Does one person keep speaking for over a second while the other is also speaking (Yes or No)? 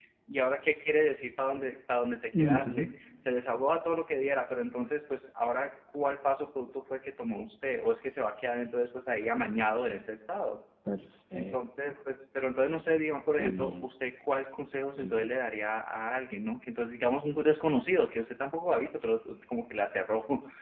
No